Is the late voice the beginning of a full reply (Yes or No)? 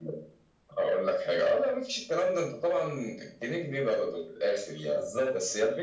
No